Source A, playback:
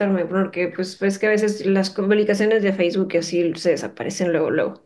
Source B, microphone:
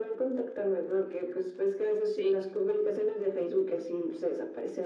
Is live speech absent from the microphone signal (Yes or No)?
No